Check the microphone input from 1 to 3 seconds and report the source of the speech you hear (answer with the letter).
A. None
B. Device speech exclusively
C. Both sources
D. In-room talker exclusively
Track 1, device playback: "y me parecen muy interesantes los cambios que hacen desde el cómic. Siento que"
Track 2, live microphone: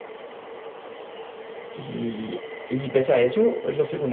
D